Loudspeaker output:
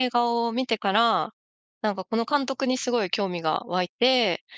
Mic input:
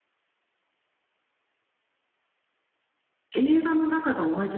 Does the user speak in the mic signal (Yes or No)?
Yes